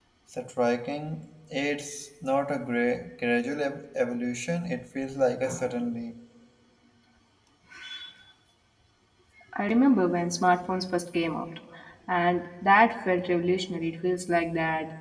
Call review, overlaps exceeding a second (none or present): none